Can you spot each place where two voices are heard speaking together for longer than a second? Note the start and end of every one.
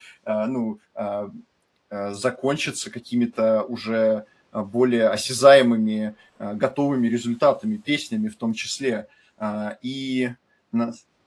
none

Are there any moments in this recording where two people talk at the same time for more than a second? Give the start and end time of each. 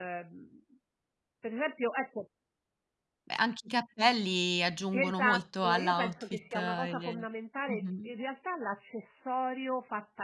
4.9-7.2

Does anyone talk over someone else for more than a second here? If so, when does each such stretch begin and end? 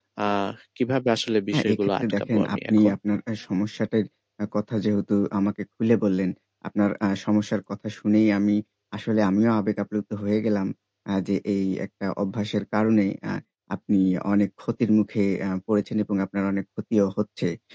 1.5-2.9

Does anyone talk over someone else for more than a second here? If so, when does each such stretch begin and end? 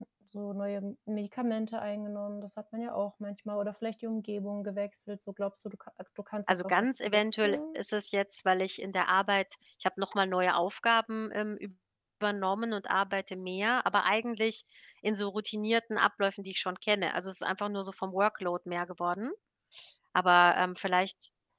6.5-7.8

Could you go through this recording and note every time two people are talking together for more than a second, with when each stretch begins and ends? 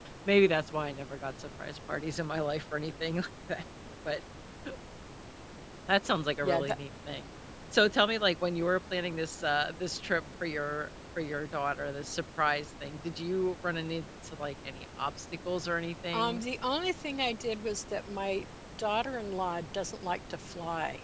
none

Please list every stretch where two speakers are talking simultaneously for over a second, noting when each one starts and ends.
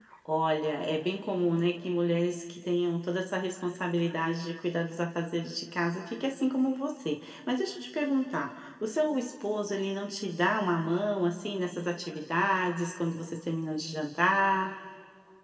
none

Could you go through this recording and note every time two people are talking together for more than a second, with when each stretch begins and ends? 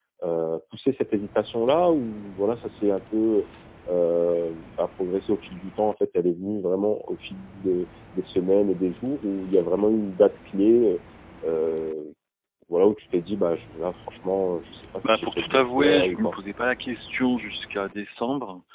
15.1-16.3

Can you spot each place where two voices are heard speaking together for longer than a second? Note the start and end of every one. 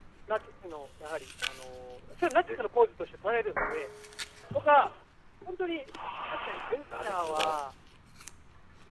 6.0-7.6

